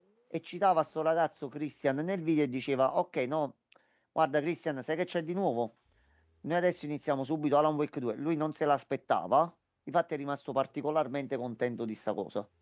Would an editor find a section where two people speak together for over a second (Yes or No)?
No